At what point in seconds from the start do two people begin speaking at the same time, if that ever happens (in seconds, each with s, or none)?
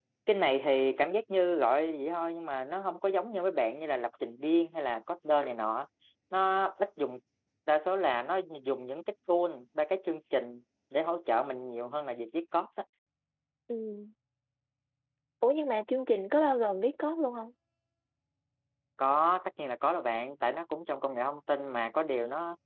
none